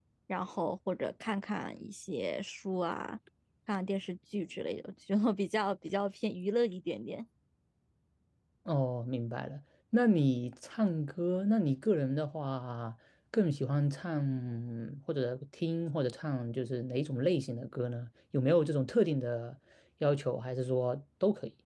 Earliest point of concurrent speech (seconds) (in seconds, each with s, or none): none